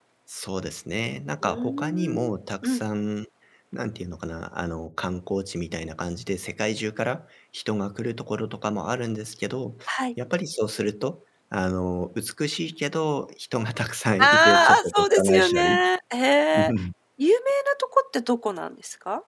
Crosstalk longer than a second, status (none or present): present